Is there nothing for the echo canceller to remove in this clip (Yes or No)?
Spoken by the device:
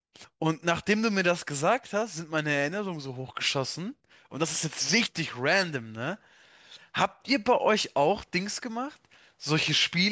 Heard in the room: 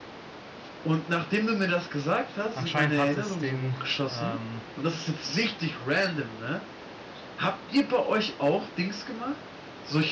No